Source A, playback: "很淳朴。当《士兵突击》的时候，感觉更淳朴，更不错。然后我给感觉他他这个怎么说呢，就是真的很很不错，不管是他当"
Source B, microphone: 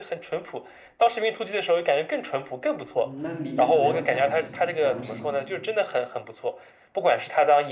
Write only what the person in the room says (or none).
嗯，那里面主要讲了是讲了什么呢？